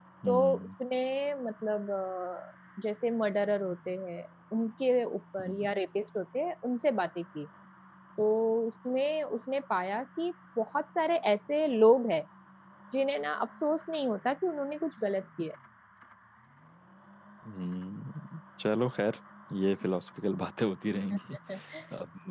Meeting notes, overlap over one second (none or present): none